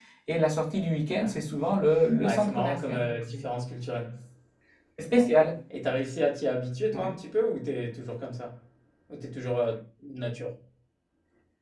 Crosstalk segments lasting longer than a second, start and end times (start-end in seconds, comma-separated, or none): 2.2-3.6